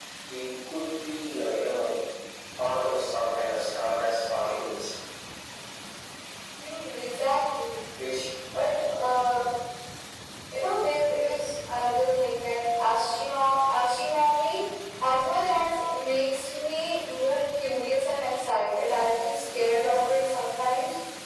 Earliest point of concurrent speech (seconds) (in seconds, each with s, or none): none